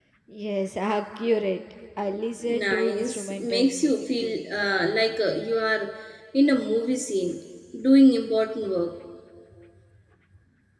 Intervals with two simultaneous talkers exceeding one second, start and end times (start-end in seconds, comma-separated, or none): 2.4-4.9